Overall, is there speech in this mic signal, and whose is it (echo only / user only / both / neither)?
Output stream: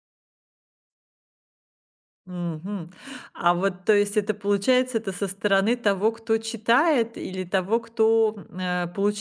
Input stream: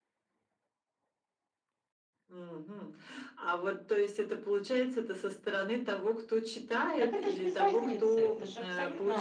both